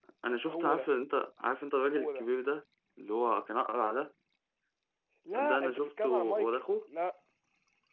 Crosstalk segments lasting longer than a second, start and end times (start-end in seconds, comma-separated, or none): 5.5-6.7